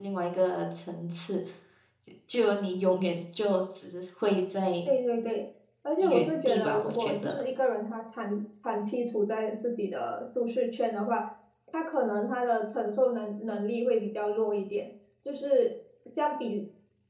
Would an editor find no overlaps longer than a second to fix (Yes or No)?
No